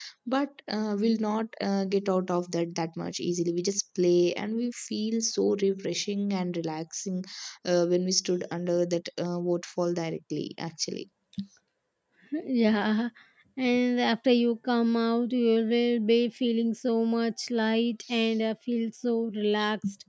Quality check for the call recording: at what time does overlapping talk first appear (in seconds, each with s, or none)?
none